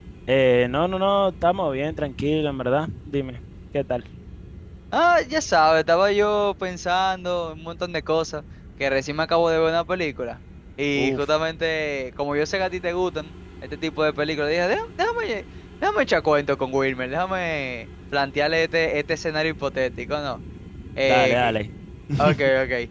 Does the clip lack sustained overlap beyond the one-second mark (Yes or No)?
Yes